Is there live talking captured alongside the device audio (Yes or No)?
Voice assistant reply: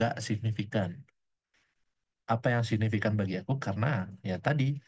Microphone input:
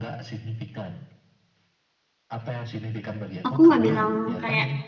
Yes